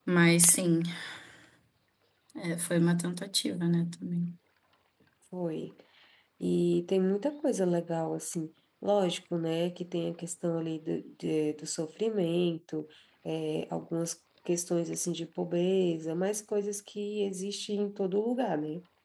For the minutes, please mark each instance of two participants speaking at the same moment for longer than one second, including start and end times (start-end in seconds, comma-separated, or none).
none